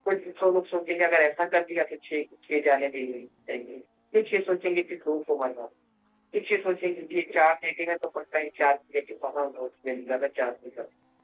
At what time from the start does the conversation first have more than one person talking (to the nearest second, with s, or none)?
none